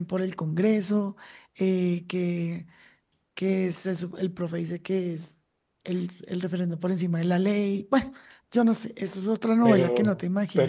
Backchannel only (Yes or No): No